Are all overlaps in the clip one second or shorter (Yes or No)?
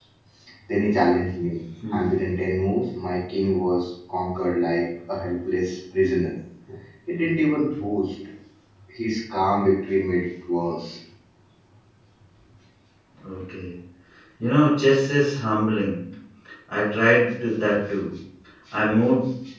Yes